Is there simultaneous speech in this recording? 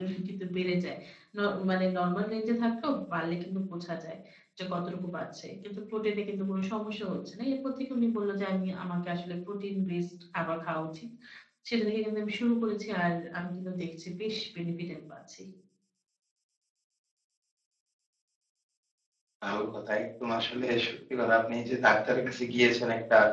No

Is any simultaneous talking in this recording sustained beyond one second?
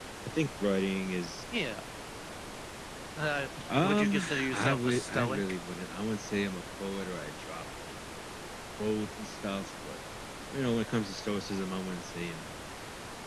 Yes, from 3.8 s

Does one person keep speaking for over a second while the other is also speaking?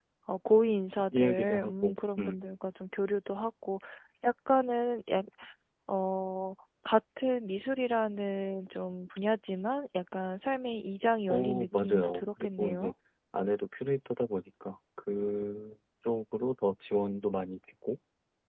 Yes, from 1.1 s

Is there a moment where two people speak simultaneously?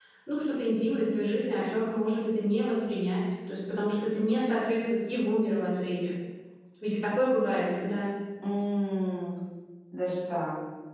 No

